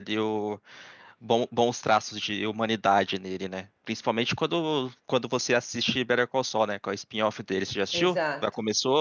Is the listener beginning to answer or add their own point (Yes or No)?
Yes